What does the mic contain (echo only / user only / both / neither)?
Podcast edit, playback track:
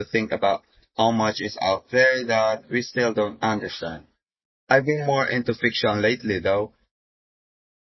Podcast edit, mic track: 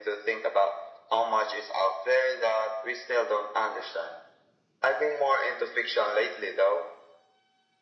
echo only